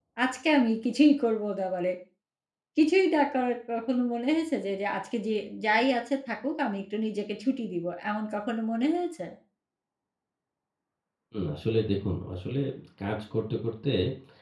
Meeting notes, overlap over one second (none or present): none